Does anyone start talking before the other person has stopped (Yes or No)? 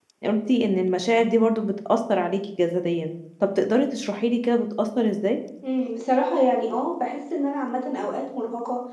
No